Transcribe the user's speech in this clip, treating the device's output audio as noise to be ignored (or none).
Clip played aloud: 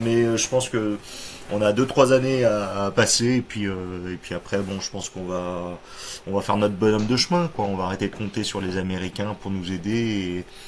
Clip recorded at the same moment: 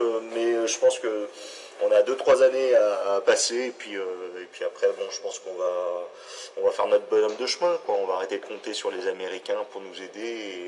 none